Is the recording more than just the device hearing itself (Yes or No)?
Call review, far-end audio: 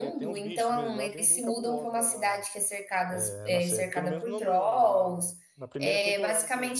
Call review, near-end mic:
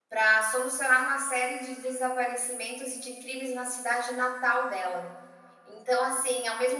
Yes